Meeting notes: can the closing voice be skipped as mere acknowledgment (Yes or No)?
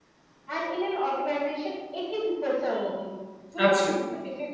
Yes